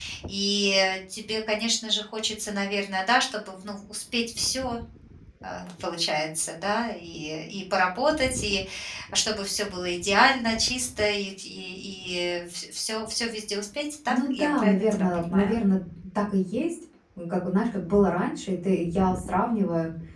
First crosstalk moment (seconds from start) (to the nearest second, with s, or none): 14 s